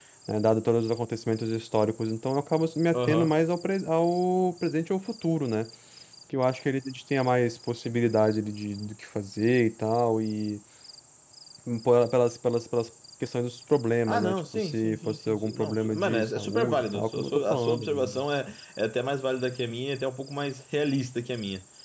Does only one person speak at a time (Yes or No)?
No